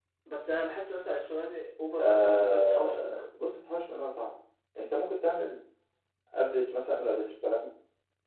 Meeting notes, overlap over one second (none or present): present